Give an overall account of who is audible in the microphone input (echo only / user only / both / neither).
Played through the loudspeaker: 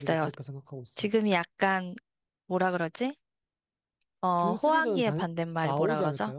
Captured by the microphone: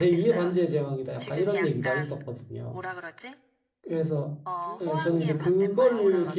both